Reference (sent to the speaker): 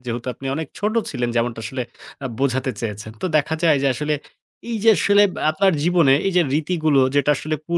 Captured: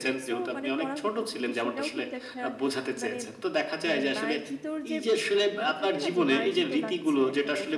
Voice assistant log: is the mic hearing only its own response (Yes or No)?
No